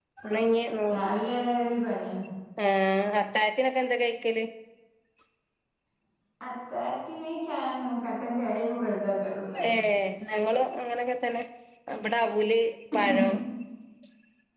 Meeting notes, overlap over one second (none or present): none